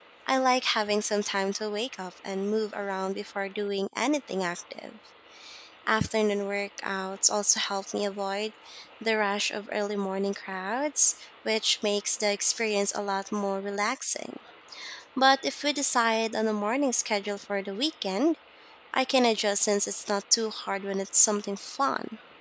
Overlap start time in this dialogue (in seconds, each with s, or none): none